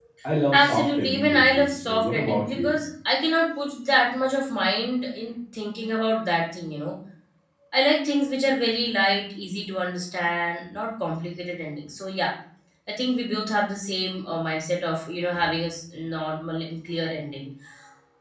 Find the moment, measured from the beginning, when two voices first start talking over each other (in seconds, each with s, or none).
0.5 s